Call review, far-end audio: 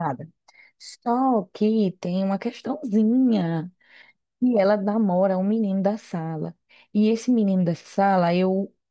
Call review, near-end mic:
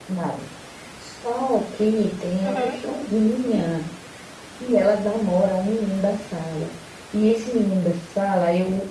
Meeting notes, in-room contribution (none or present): present